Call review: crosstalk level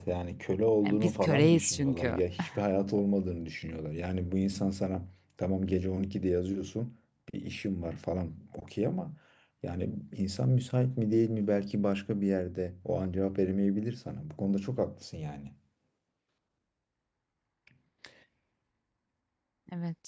present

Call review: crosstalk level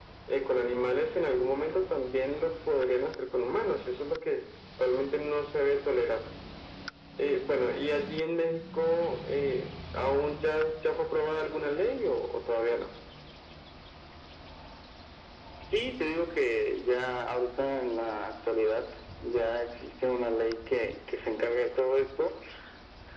none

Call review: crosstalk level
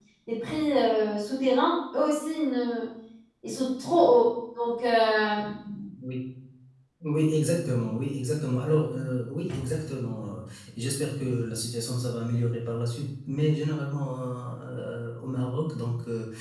none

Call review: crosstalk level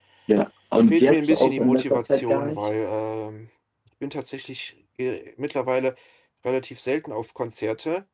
present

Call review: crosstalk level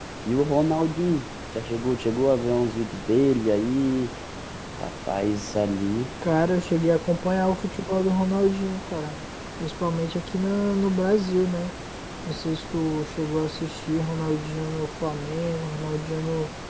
none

